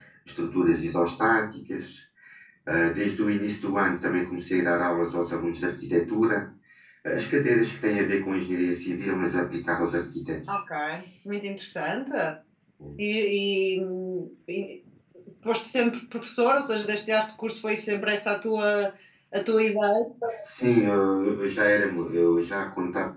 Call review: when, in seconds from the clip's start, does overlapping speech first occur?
none

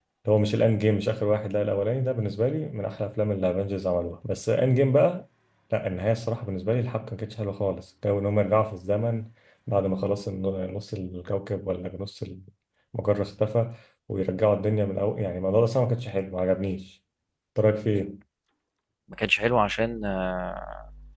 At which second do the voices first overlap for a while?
none

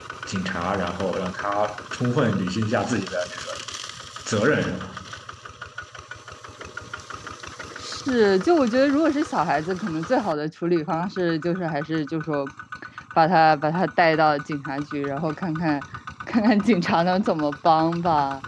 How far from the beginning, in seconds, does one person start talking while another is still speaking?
none

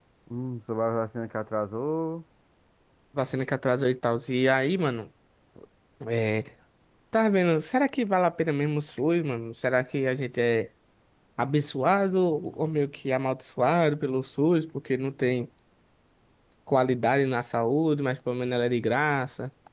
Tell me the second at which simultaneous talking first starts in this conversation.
none

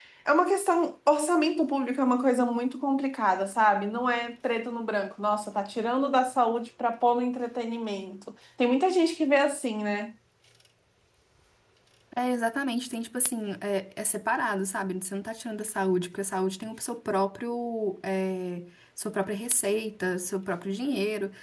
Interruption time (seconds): none

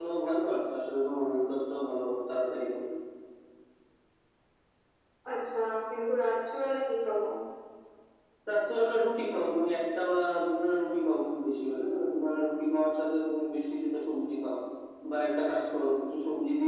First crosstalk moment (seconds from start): none

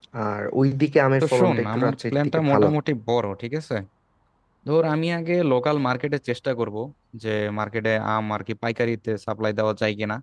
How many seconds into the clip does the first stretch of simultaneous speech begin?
1.2 s

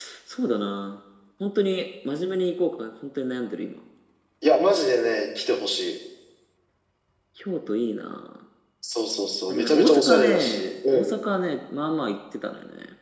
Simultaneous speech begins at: 9.5 s

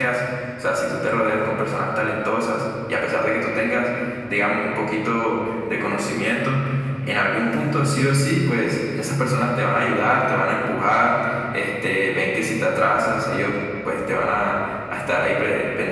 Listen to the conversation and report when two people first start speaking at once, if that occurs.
none

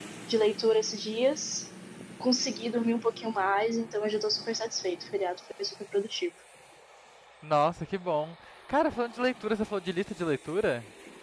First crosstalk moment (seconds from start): none

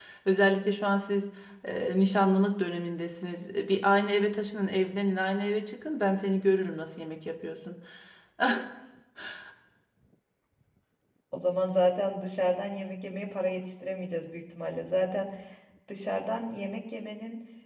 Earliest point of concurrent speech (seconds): none

